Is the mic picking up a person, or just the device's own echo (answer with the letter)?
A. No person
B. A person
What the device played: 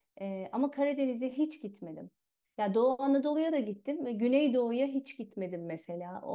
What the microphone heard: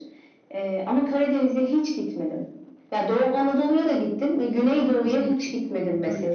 B